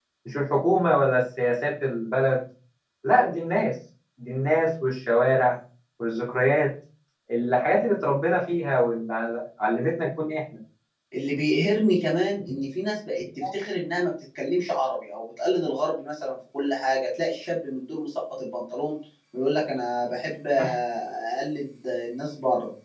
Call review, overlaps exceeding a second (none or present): none